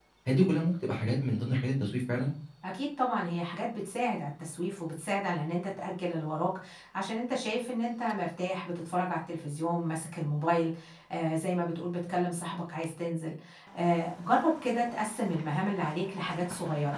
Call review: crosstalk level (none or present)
none